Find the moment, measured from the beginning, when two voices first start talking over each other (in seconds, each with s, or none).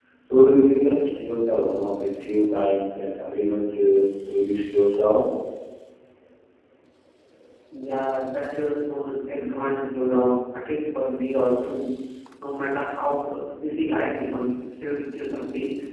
none